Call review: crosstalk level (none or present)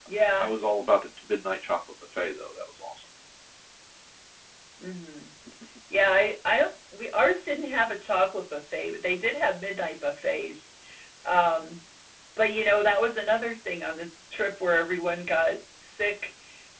none